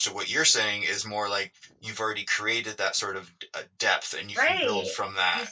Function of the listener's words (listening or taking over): taking over